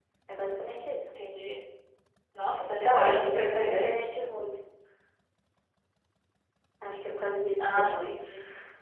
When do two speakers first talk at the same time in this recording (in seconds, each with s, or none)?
2.8 s